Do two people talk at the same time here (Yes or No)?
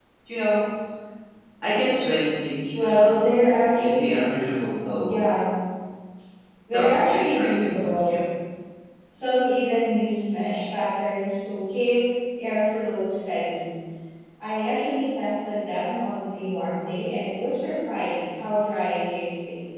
Yes